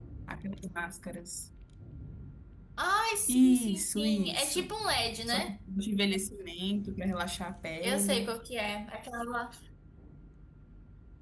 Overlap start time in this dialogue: 3.3 s

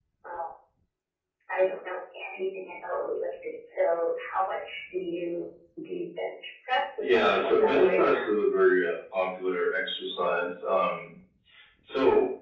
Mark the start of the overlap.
7.0 s

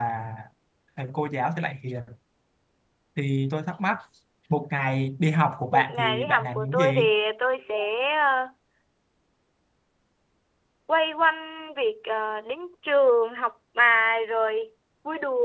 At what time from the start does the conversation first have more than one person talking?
5.7 s

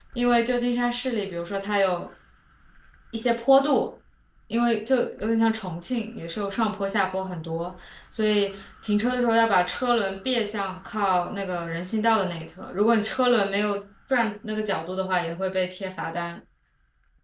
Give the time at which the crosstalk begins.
none

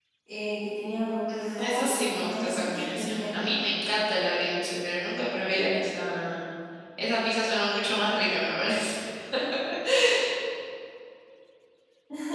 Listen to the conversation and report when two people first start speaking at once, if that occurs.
1.3 s

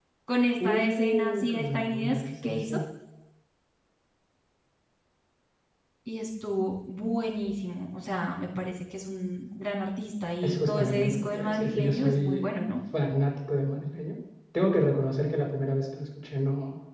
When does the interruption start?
0.6 s

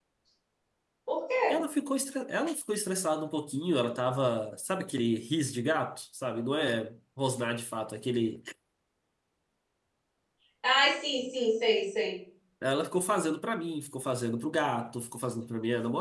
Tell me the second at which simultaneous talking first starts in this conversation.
none

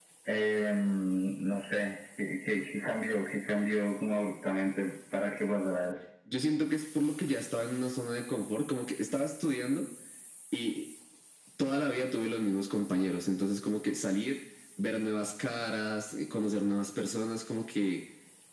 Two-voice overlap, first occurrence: none

